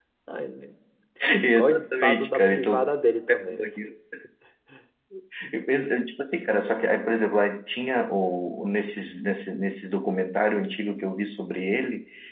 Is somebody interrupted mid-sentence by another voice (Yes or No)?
Yes